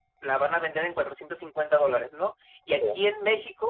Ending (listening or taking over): listening